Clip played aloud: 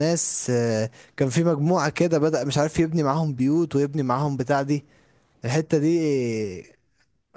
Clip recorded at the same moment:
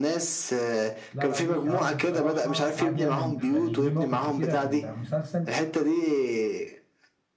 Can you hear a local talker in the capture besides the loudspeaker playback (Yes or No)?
Yes